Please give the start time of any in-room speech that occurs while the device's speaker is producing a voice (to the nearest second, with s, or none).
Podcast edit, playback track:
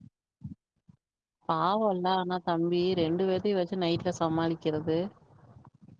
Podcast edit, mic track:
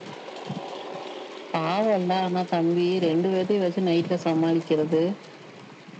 none